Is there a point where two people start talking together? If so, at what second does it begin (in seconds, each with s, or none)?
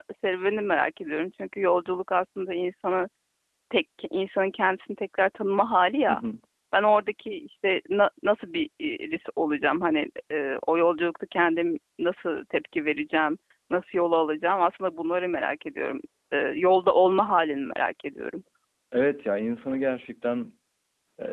none